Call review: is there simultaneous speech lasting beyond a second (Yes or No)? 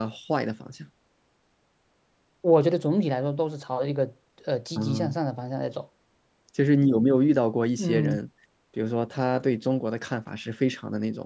No